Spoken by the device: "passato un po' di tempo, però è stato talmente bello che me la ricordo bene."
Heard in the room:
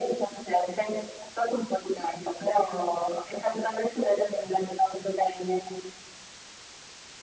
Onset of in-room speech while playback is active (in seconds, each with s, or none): none